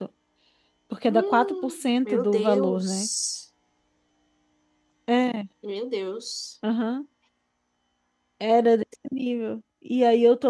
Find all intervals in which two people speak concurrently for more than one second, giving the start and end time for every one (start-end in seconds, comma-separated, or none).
1.1-3.1